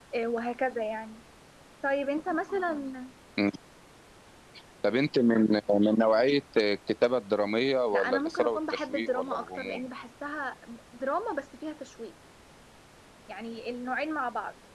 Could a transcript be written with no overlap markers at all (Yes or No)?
No